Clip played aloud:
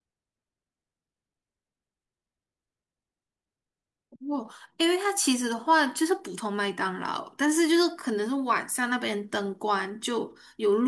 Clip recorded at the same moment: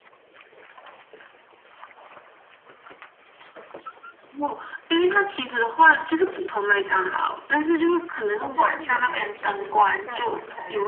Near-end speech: present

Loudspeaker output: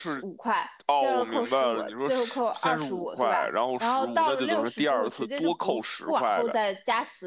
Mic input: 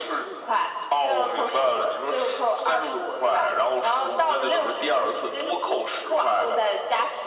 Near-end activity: none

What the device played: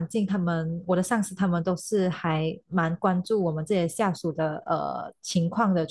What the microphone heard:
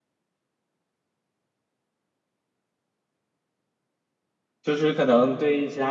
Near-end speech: present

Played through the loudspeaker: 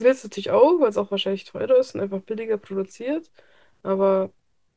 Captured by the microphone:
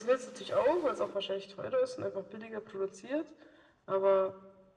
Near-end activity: none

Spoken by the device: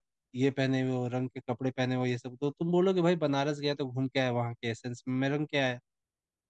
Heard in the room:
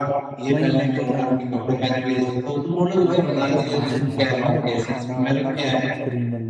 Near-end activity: present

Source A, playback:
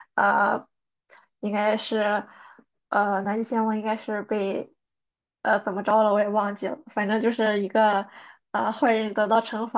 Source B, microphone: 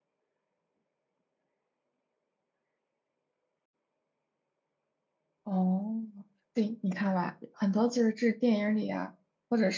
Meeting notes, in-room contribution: present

